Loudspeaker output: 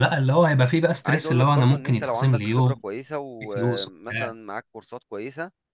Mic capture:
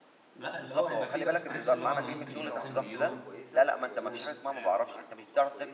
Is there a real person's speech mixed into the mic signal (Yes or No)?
Yes